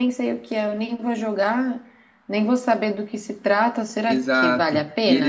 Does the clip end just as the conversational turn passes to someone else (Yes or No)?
Yes